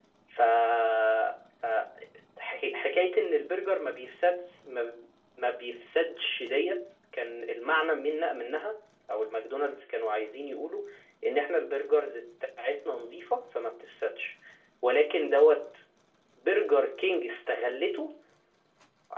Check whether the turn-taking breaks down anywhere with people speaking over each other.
No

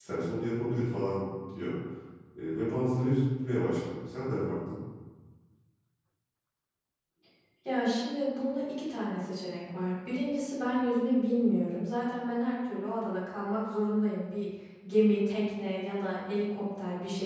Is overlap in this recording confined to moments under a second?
Yes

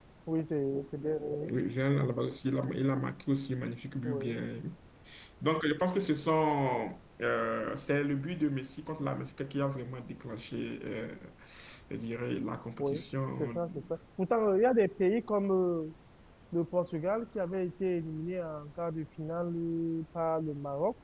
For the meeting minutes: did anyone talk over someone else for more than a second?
No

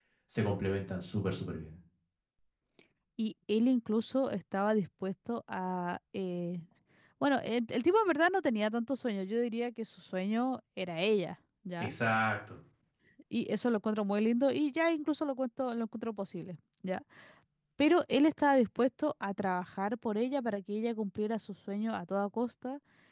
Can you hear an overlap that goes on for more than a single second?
No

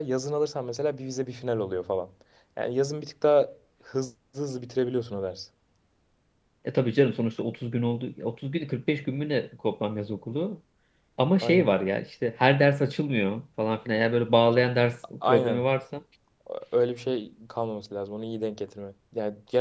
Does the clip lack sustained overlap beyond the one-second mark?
Yes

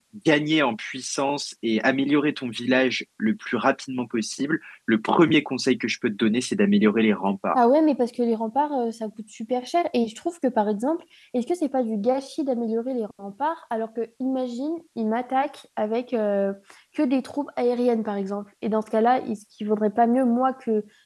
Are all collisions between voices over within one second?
Yes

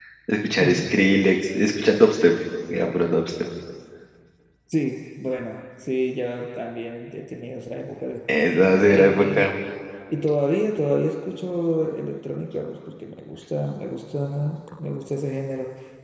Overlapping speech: Yes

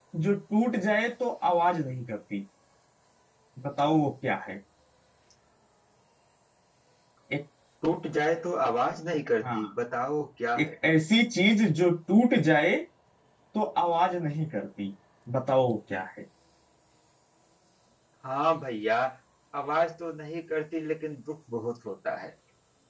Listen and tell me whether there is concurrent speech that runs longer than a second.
No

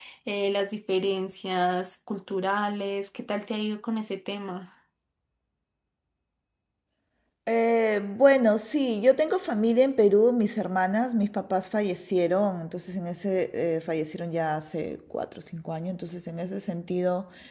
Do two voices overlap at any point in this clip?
No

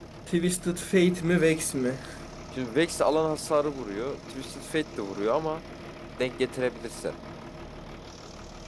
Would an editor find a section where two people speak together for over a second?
No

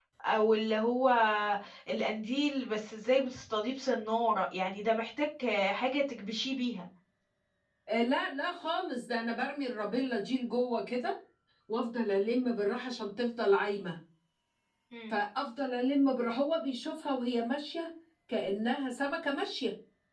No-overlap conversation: Yes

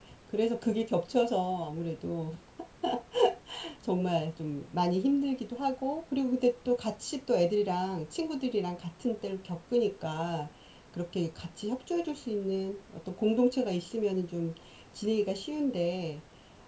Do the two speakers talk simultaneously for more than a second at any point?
No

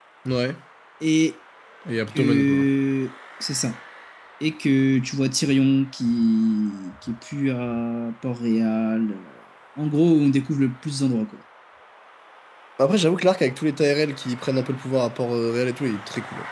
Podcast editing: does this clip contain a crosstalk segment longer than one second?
No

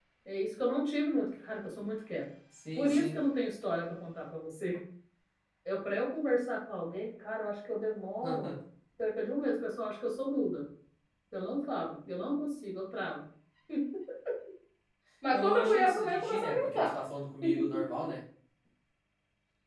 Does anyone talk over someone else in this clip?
Yes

